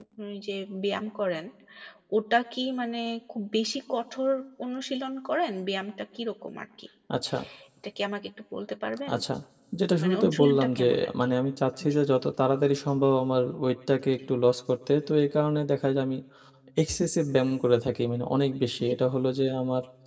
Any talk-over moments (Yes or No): Yes